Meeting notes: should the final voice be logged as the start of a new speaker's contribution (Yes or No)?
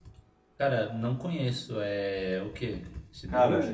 Yes